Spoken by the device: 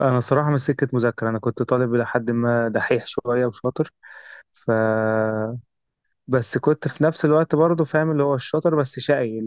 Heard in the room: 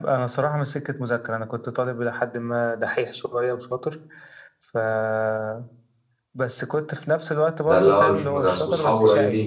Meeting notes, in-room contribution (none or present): present